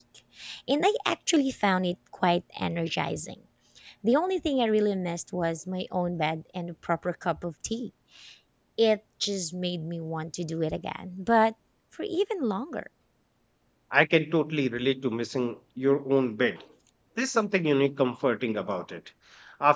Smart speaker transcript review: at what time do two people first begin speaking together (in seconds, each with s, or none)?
none